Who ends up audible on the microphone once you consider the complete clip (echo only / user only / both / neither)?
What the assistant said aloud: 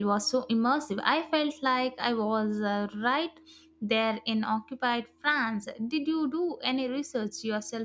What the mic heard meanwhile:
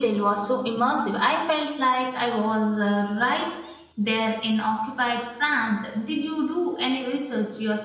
echo only